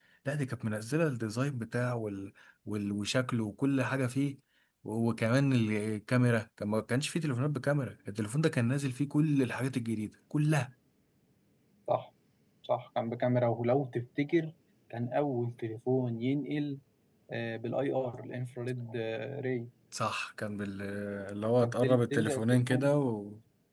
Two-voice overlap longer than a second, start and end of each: 21.6-22.9

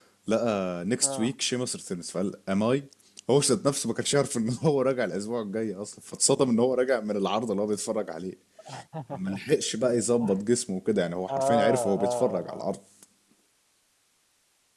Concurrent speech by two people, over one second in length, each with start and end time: 11.3-12.7

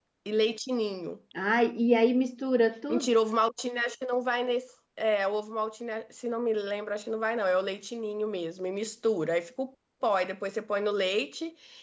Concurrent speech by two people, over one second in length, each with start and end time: none

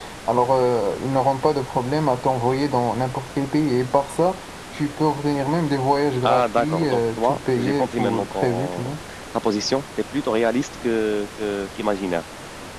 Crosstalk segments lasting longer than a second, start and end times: 6.2-8.9

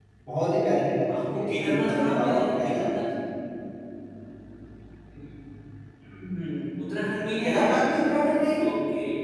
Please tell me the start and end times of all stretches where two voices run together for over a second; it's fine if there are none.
1.0-2.9

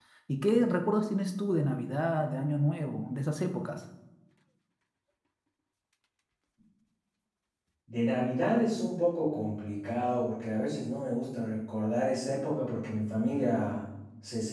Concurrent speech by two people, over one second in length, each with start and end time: none

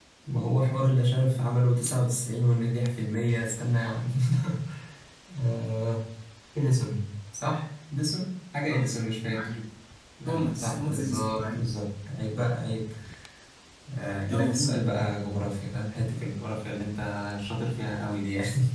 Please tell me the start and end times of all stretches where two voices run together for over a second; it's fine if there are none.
10.2-11.7

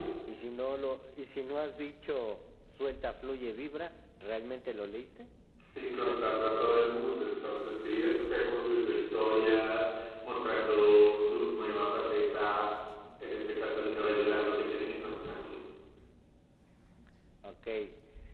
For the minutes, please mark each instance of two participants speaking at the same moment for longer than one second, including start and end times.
none

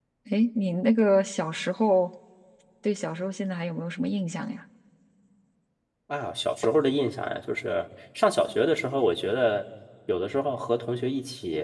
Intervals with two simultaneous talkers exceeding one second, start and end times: none

